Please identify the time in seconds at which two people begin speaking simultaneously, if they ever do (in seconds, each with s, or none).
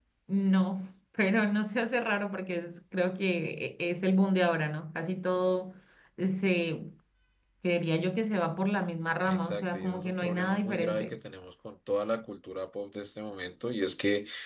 9.3 s